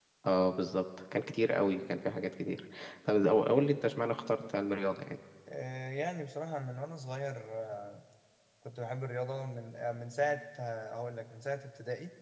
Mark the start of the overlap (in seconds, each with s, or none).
none